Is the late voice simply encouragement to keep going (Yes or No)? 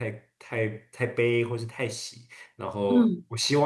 Yes